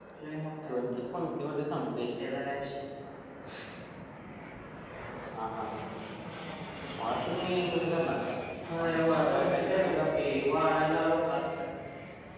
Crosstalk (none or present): present